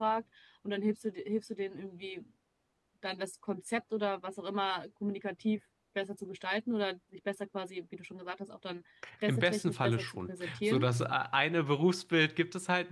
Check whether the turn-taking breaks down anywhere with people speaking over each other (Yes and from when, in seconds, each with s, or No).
Yes, from 9.0 s